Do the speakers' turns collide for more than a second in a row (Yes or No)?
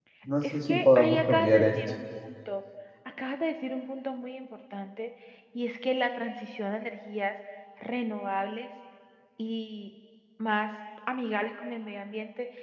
Yes